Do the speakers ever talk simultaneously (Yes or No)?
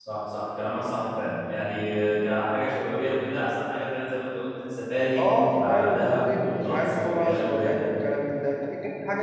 Yes